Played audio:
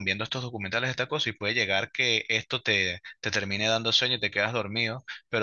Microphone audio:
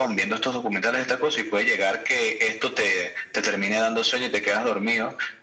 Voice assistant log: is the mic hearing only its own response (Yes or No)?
Yes